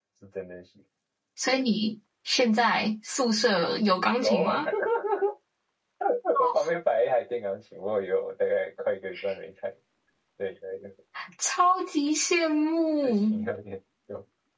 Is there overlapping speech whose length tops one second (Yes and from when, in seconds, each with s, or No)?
No